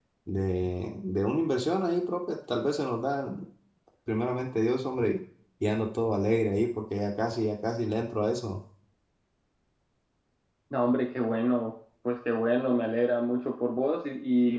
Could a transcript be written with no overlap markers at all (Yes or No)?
Yes